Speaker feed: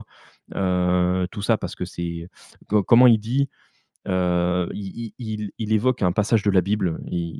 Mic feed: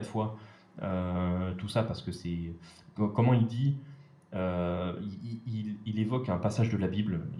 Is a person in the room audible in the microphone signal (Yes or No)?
No